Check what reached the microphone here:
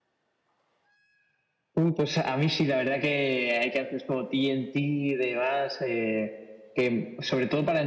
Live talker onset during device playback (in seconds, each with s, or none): none